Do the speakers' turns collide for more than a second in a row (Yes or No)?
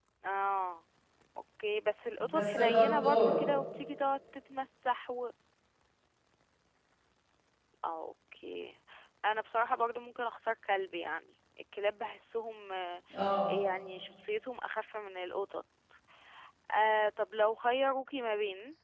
Yes